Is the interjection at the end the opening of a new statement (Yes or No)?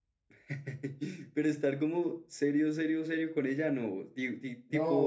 Yes